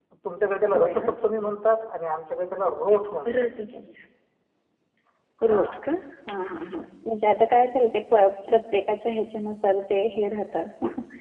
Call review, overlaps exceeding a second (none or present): none